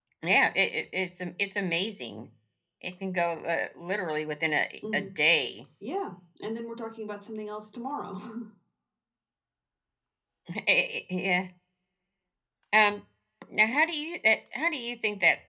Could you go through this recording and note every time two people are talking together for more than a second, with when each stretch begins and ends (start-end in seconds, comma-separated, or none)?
none